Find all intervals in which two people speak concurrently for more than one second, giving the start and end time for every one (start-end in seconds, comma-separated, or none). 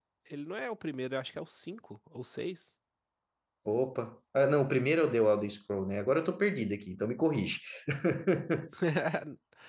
none